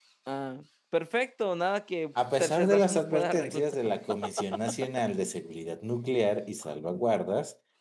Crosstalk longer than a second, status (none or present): present